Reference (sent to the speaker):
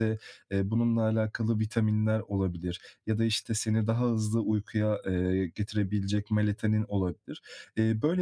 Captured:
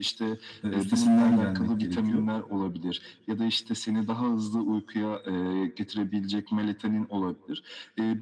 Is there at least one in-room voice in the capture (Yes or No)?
Yes